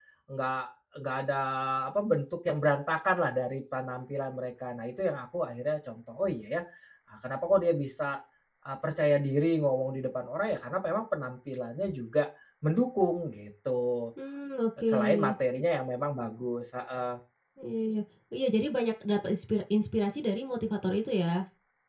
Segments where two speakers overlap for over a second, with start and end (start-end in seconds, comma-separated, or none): none